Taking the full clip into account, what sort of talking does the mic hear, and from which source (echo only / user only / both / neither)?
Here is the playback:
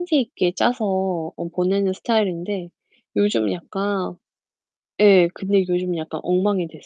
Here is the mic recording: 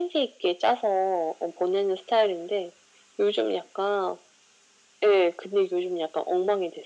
echo only